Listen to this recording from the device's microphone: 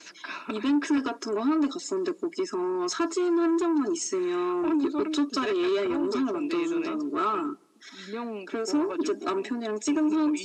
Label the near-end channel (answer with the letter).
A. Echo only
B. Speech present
A